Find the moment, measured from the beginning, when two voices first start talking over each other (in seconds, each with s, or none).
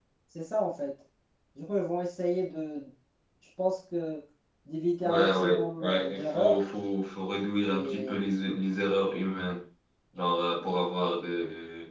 5.0 s